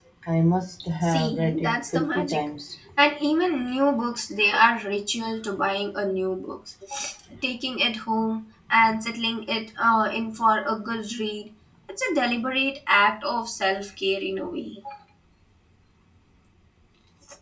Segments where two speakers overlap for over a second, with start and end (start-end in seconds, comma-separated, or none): 1.0-2.4